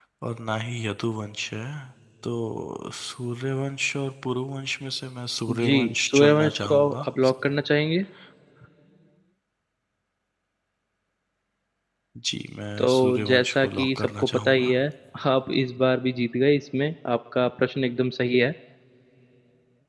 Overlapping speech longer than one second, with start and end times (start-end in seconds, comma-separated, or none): 5.5-7.1, 12.8-14.7